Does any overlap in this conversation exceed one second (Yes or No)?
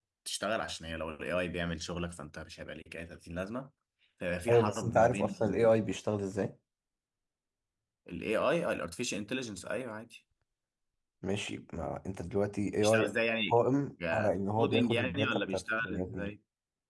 Yes